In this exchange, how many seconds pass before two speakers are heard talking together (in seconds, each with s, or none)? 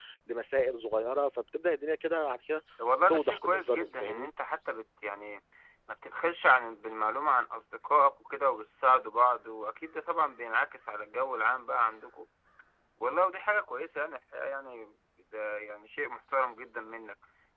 3.1 s